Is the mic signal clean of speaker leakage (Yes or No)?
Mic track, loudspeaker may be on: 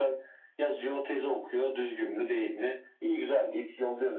No